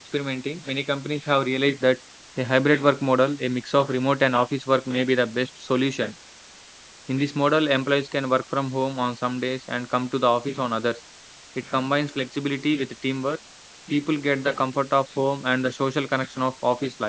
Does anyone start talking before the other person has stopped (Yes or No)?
No